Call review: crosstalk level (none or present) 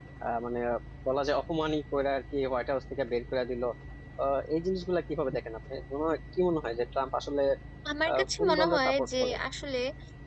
present